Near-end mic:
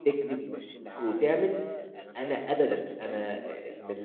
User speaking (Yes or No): Yes